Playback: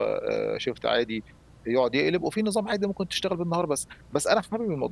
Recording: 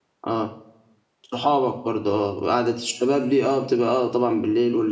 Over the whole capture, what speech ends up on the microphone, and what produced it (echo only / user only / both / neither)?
user only